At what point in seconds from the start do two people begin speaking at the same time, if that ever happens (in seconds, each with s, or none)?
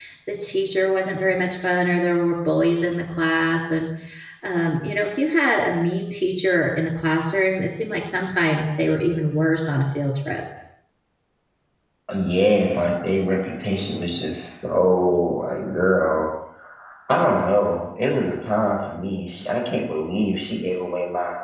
none